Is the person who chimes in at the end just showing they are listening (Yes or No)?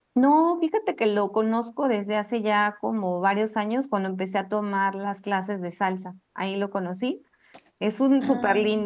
Yes